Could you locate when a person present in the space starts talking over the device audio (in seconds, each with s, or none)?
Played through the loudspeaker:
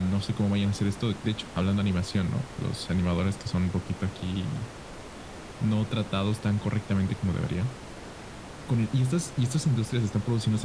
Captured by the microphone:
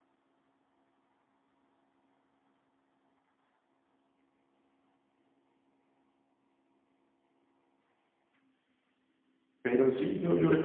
9.6 s